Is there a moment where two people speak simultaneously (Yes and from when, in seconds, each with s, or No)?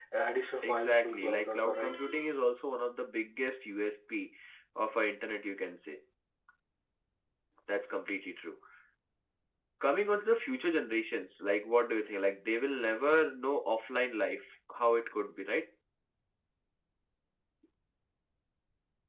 Yes, from 0.6 s